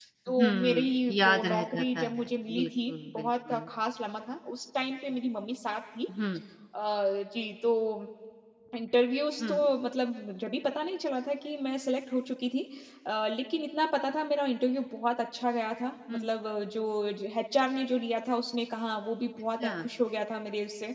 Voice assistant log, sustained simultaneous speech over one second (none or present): present